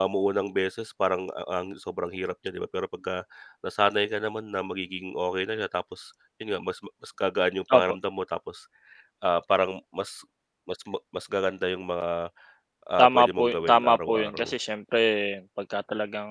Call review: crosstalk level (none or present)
present